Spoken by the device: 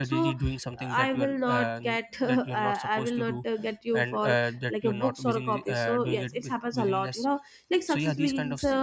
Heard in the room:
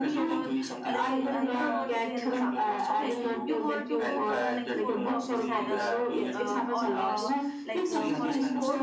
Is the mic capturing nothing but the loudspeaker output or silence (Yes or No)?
No